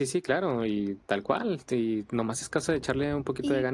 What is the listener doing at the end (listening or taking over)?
taking over